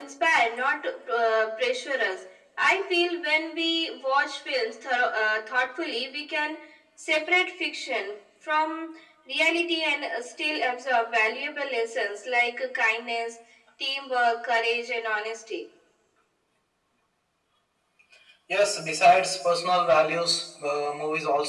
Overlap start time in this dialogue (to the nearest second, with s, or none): none